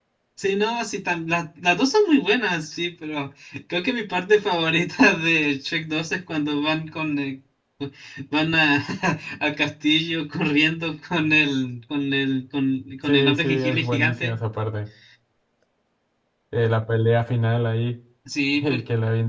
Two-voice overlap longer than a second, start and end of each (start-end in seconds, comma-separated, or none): 13.1-14.4